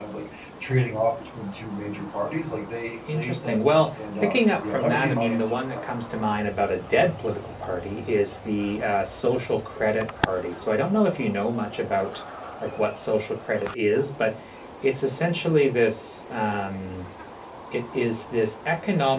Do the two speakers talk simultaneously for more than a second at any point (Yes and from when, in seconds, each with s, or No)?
Yes, from 3.1 s